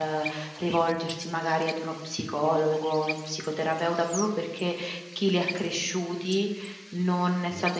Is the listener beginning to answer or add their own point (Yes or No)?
No